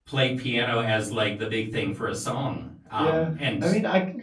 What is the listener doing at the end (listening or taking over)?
taking over